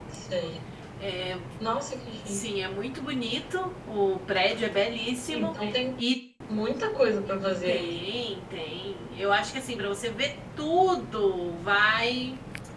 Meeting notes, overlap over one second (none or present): none